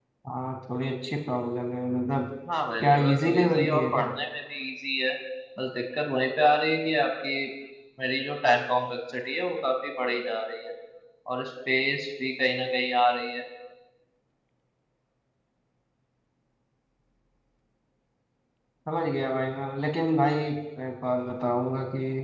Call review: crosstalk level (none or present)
present